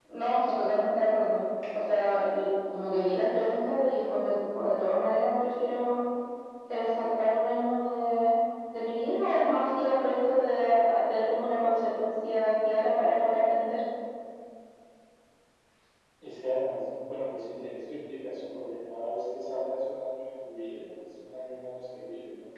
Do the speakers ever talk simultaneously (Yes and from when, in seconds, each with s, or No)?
No